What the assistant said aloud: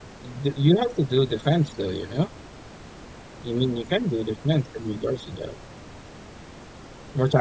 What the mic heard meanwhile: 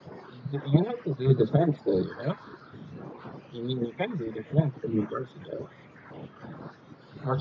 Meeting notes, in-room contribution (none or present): none